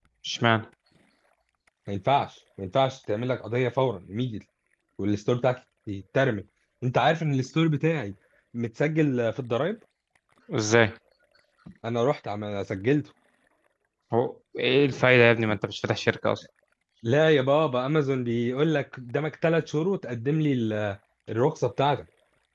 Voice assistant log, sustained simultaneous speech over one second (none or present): none